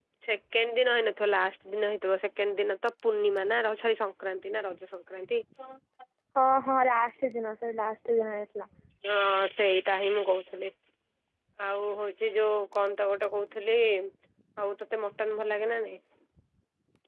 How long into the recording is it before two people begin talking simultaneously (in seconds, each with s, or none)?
none